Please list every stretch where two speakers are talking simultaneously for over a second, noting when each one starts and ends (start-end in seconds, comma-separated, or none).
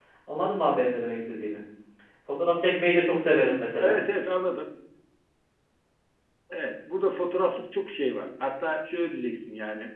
none